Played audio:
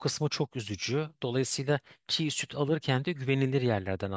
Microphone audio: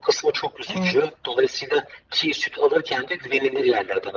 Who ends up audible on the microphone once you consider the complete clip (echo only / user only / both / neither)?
both